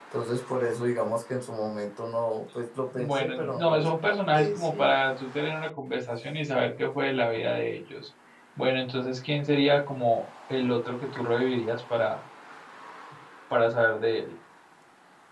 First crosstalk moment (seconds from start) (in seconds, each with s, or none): 3.0 s